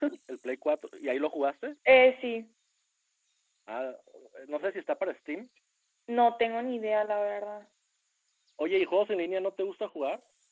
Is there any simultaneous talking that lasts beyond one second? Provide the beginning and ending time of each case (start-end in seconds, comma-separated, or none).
none